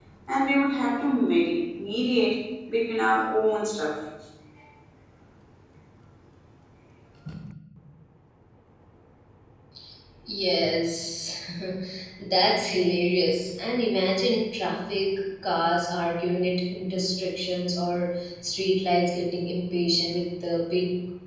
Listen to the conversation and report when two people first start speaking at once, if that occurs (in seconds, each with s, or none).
none